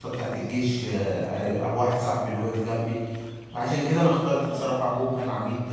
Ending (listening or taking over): listening